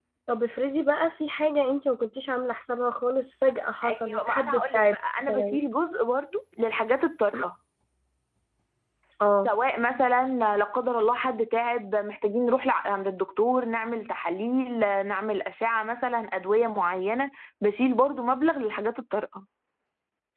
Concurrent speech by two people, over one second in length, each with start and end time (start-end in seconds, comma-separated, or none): 3.9-5.6